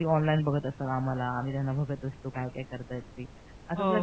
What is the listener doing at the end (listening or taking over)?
listening